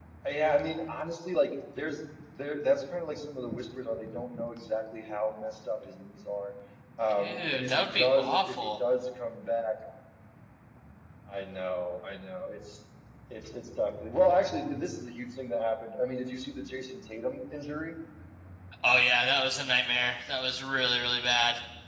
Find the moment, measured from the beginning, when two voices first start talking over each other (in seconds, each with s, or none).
7.2 s